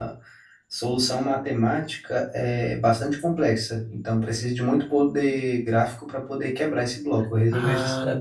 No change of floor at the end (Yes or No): No